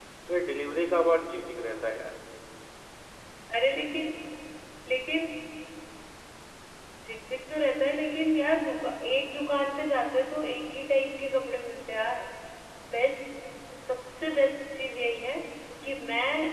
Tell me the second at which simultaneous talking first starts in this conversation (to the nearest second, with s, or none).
none